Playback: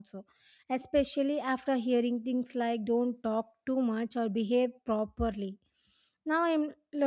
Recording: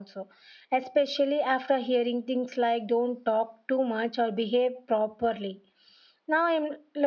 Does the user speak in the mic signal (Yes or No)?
No